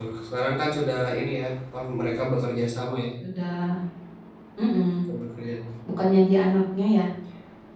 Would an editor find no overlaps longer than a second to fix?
Yes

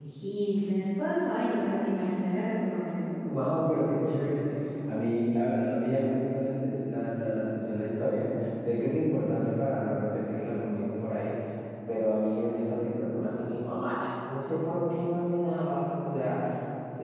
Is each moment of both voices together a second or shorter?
Yes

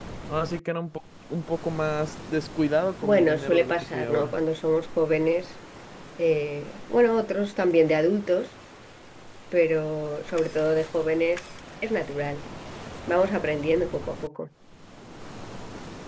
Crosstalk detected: Yes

